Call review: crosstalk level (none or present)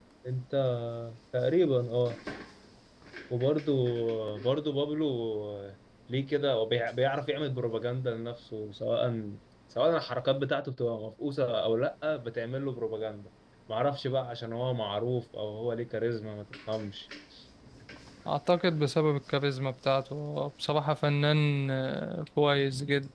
none